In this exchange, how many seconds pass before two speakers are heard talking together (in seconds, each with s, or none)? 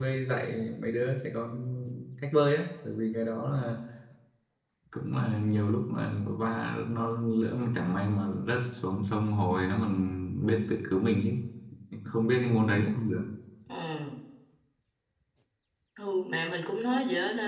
none